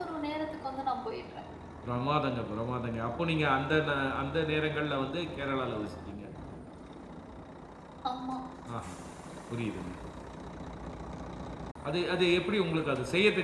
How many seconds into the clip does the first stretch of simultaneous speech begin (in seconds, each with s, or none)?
none